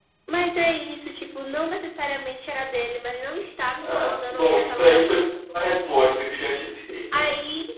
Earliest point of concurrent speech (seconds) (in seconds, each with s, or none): 3.8 s